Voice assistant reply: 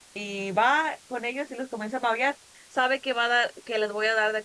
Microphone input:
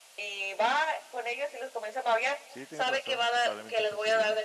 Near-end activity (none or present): present